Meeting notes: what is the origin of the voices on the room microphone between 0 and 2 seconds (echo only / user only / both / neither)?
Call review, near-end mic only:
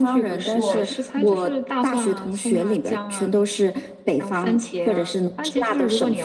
both